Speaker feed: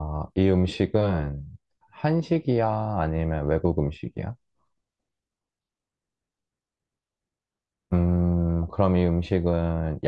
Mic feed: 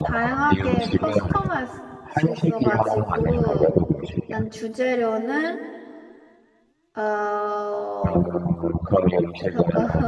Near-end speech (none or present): present